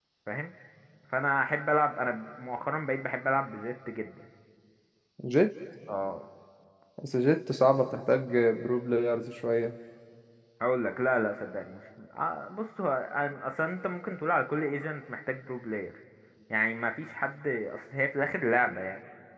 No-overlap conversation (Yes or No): Yes